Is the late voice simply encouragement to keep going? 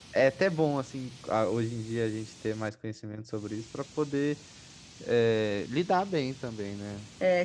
No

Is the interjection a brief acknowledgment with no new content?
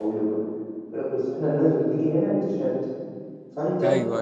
Yes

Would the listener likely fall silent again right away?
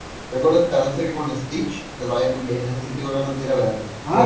No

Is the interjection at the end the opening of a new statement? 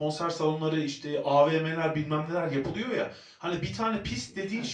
No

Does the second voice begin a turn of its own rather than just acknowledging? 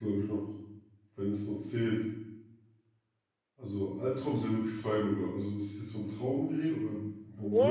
Yes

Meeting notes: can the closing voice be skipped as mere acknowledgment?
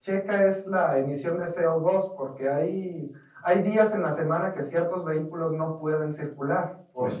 No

